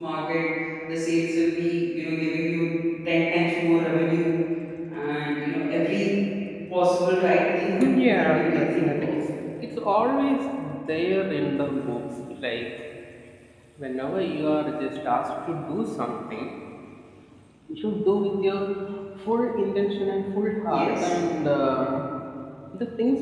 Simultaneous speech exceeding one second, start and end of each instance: 7.8-9.1

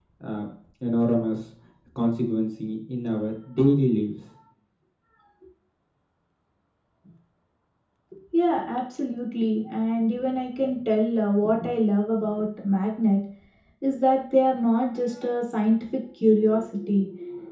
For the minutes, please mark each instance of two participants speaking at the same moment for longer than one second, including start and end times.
none

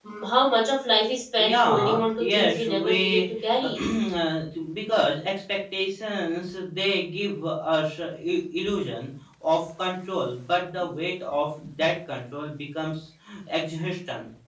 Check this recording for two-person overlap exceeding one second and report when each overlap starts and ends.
1.4-3.8

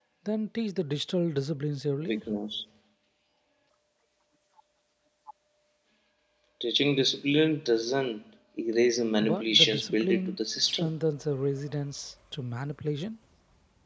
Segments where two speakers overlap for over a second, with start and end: 9.2-10.9

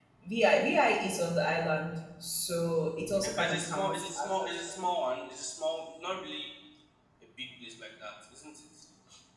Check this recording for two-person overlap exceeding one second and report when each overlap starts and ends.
3.2-4.6

